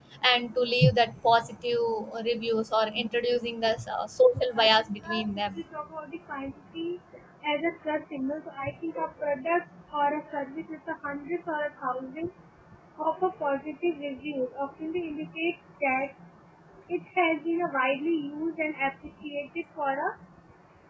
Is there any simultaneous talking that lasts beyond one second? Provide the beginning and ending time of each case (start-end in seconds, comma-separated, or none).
4.3-5.6